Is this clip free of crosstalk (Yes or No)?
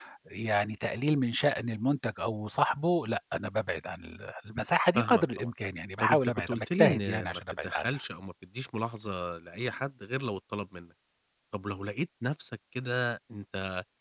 No